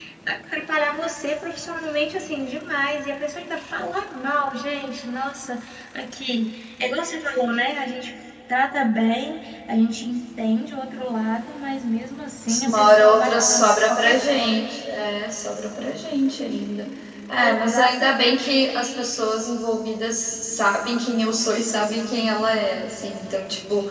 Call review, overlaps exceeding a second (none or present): present